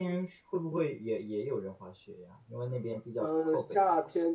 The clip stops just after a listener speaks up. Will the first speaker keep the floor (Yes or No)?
No